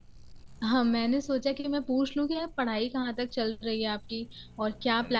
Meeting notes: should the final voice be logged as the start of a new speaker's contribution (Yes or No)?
No